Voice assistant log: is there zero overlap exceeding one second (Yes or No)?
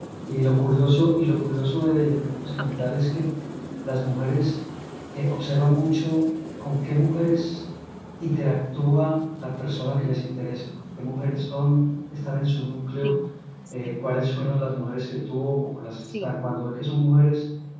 Yes